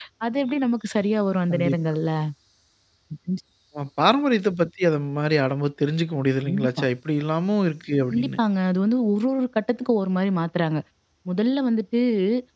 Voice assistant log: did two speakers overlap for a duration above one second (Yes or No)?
No